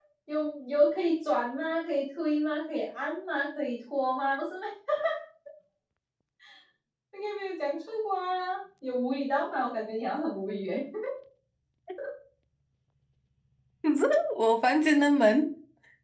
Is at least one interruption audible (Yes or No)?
No